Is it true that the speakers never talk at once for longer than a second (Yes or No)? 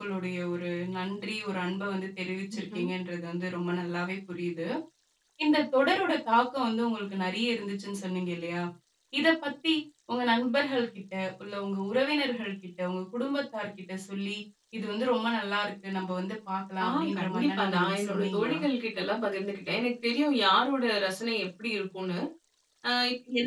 No